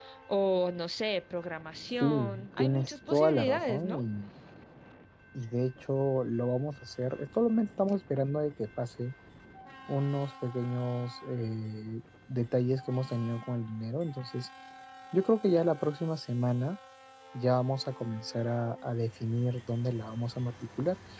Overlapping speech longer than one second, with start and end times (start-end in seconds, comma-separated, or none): 2.0-4.0